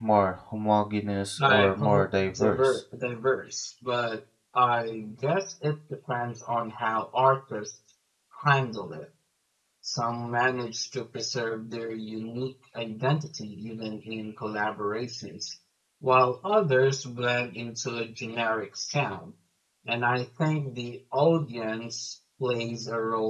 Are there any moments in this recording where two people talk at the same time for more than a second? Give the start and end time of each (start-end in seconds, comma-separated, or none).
1.5-2.8